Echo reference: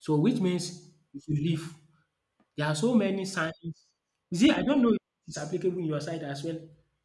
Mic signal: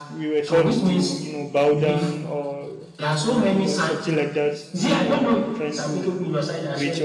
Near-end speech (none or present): present